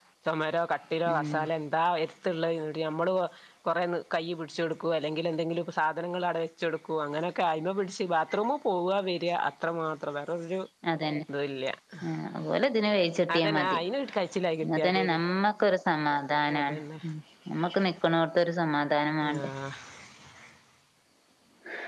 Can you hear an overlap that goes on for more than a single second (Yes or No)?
No